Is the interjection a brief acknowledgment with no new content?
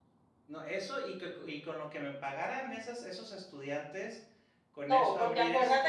No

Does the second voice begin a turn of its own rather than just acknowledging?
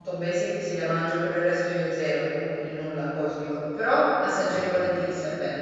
No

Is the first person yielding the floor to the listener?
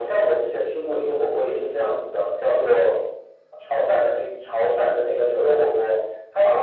Yes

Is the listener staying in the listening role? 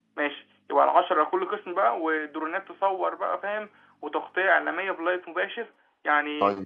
No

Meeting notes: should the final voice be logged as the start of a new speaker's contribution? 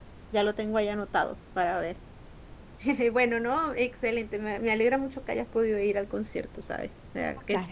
Yes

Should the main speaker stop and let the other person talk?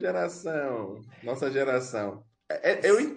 No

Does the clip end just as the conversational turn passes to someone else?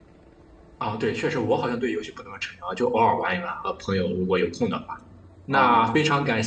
No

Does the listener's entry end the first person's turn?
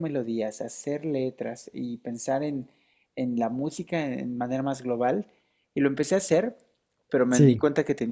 No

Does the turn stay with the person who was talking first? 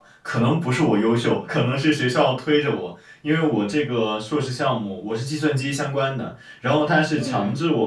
Yes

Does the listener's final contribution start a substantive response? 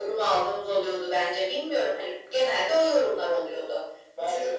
No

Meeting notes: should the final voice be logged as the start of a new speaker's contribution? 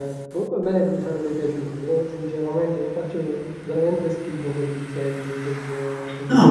Yes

